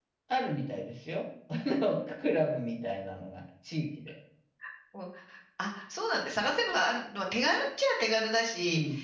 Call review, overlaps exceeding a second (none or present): none